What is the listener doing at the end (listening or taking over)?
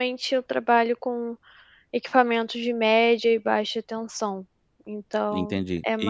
taking over